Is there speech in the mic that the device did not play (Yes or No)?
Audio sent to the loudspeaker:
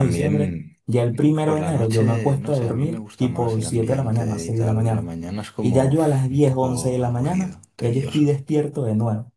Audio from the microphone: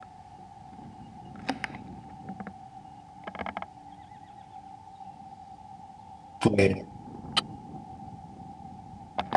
Yes